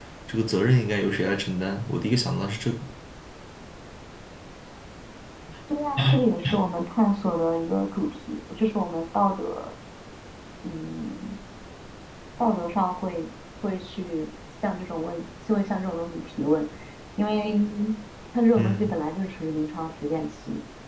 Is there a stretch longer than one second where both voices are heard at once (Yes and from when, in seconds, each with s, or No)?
No